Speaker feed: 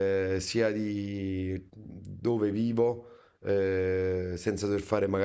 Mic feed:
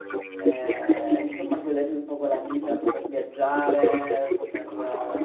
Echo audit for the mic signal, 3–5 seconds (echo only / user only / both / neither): both